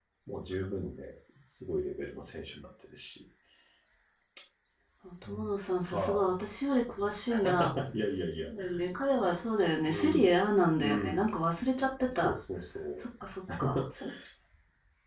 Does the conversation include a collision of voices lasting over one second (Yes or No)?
No